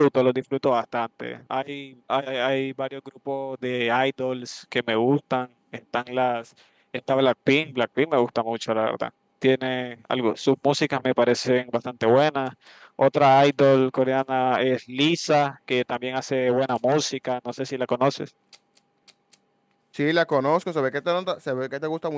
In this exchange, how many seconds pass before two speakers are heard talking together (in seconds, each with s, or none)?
none